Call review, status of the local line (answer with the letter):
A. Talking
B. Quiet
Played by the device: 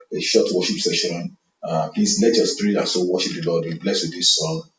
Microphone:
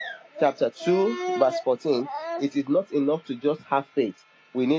A